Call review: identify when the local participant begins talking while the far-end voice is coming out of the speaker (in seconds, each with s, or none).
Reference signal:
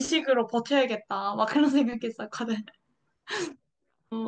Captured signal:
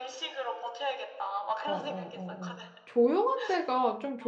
1.6 s